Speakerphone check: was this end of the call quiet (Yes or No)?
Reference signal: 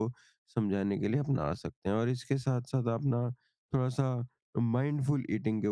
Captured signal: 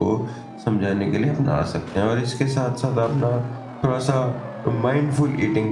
Yes